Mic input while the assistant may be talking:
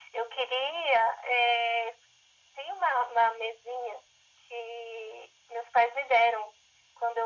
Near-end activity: none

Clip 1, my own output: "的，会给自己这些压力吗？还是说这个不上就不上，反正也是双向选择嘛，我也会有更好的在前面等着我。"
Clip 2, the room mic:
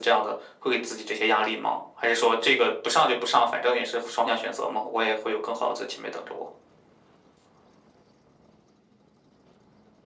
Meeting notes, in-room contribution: none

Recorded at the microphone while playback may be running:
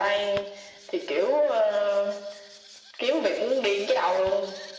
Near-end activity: none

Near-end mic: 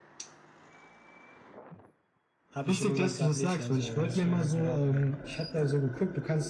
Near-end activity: present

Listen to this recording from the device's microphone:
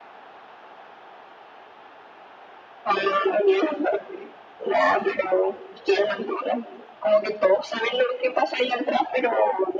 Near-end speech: none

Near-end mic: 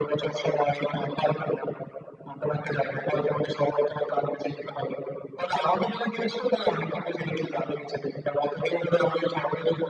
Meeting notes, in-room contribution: none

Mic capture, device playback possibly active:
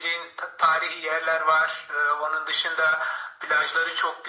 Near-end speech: none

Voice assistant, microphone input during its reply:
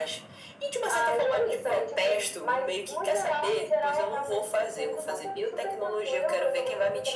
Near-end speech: none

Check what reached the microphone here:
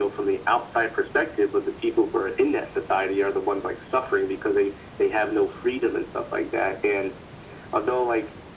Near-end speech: none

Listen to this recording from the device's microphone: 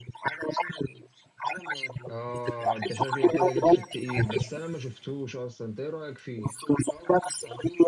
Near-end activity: present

